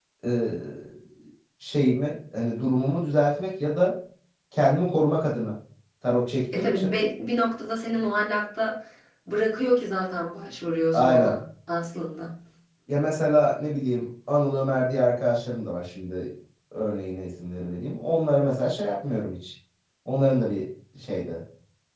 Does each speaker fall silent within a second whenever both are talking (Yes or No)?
Yes